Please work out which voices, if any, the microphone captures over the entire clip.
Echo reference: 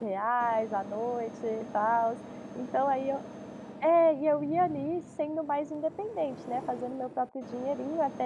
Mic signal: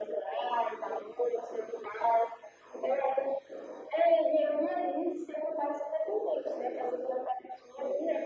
echo only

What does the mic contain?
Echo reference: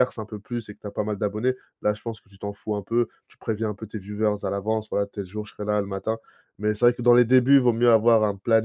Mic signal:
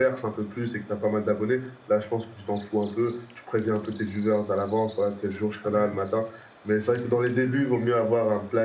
both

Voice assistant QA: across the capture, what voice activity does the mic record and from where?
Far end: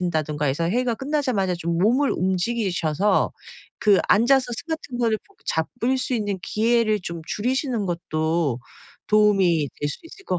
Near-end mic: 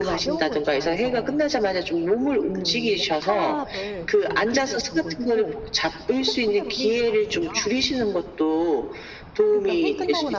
both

